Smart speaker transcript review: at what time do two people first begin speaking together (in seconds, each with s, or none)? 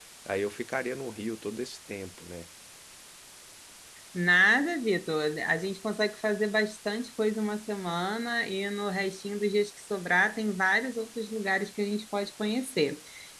none